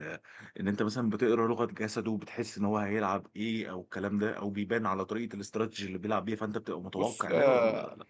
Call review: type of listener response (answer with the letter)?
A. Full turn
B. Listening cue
A